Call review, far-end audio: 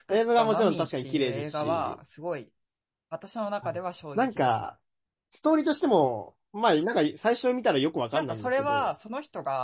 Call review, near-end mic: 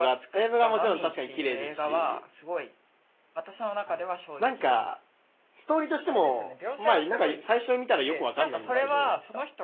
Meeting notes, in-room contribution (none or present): present